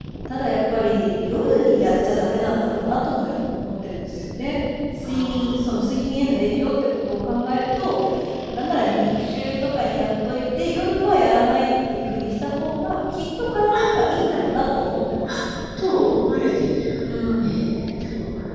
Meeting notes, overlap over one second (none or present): none